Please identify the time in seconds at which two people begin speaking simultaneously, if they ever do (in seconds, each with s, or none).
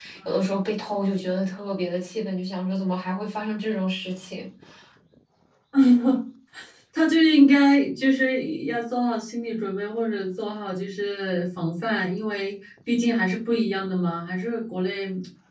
none